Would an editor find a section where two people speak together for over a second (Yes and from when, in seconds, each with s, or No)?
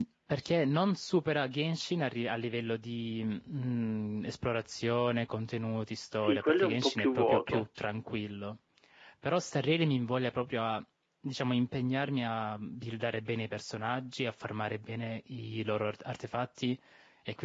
Yes, from 6.2 s